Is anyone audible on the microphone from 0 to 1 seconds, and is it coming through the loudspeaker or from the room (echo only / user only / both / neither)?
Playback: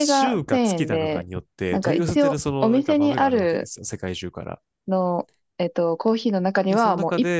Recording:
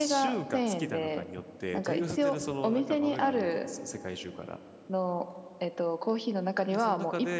echo only